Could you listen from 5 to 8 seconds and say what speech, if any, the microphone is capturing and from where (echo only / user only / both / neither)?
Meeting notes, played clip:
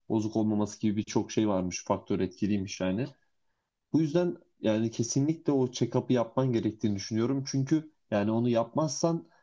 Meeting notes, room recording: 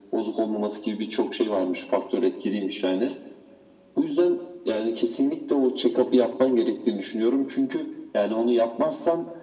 echo only